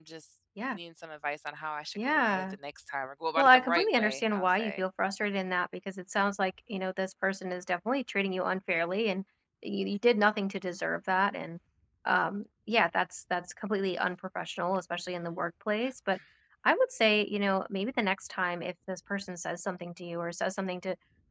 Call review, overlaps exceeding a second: present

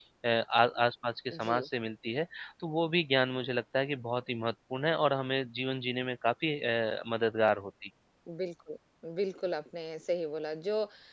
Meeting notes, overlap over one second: none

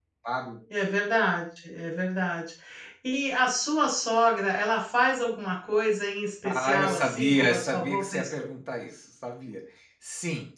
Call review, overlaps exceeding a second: present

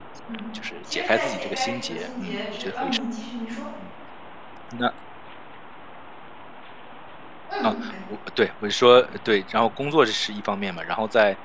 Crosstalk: present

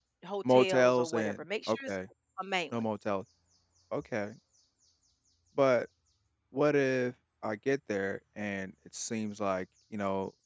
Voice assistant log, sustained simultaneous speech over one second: present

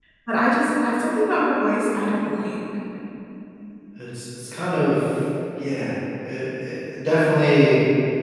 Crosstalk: none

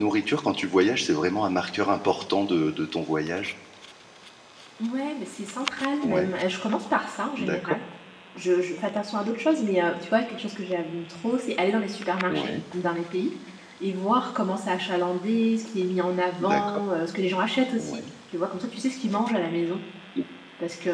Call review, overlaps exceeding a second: none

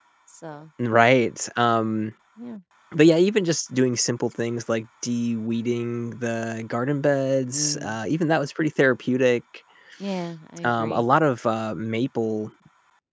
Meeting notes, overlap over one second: none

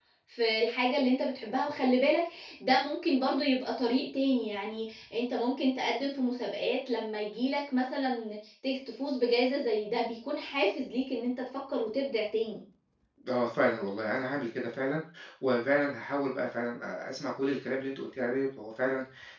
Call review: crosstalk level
none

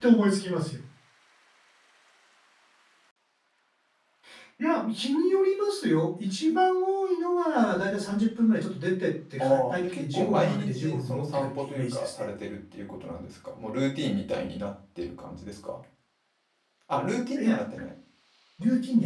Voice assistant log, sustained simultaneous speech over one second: present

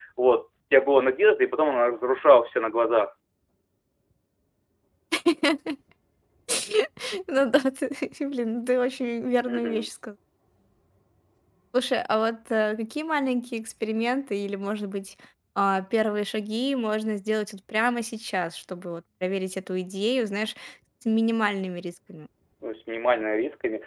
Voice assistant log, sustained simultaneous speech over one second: none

